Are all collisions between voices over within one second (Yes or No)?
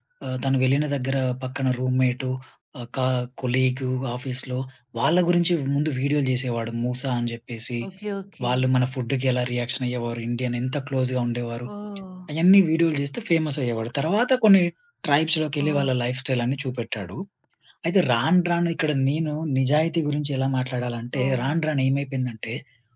Yes